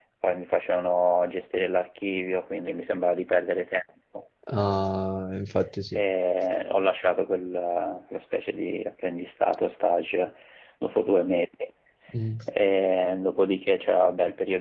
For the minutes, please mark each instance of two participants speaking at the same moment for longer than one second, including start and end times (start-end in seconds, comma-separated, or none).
none